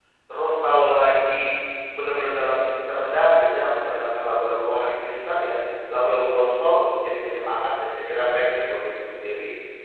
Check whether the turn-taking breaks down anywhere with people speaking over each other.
No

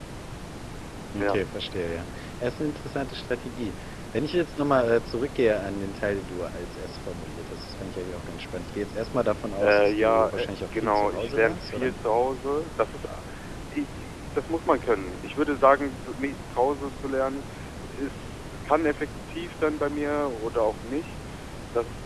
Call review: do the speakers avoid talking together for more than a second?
No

